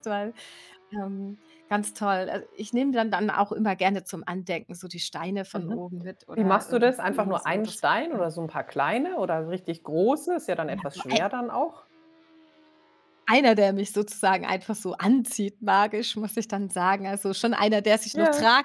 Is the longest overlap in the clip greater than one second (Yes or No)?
Yes